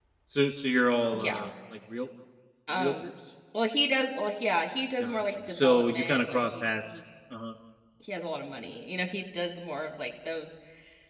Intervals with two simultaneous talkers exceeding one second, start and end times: 5.0-6.8

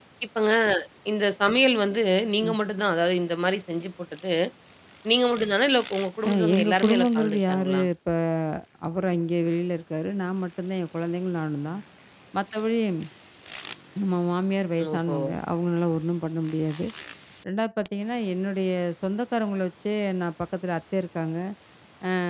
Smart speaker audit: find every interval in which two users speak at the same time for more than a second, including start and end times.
6.3-7.8

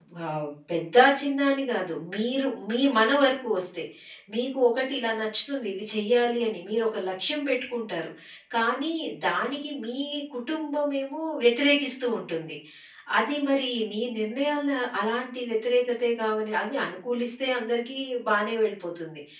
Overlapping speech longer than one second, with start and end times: none

